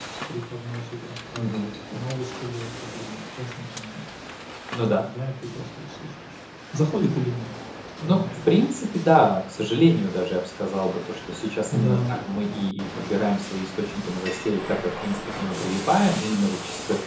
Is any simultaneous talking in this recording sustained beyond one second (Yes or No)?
No